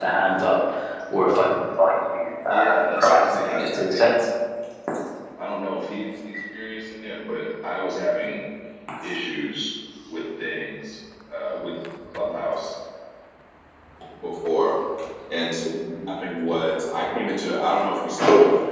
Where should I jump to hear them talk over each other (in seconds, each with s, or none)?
2.5 s